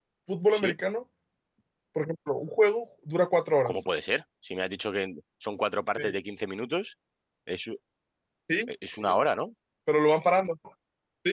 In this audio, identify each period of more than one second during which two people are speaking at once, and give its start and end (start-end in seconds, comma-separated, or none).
none